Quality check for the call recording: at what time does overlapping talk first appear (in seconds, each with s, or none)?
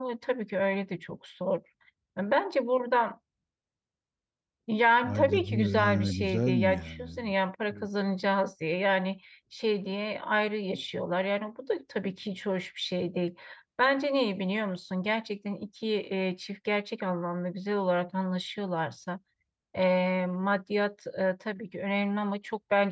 5.0 s